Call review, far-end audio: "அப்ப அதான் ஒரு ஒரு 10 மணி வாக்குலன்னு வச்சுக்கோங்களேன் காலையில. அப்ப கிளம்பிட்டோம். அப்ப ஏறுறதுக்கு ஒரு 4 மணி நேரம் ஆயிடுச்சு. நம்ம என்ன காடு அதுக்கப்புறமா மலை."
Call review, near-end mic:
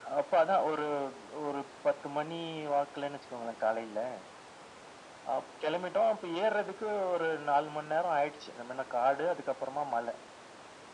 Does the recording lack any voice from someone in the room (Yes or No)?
Yes